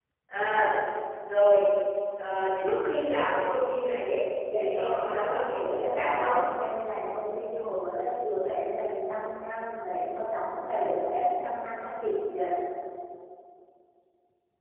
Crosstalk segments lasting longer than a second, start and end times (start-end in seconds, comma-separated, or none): 4.5-6.3